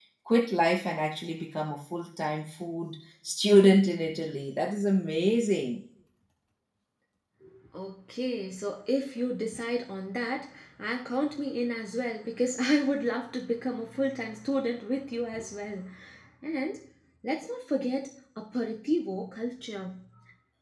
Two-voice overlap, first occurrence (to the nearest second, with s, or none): none